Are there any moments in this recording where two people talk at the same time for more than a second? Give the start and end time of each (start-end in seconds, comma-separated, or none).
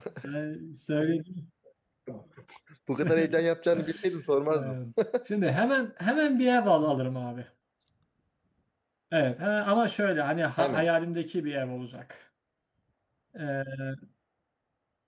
none